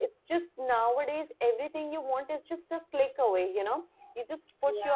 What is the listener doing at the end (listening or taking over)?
listening